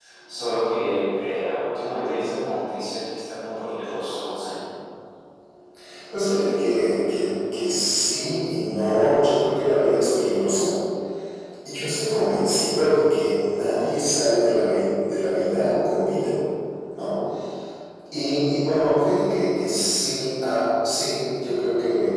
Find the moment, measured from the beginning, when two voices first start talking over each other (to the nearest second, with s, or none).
none